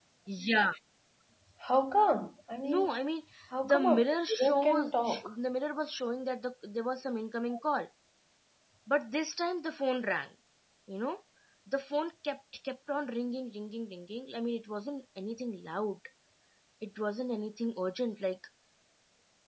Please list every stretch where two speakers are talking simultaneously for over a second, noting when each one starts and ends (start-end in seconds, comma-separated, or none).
3.6-5.3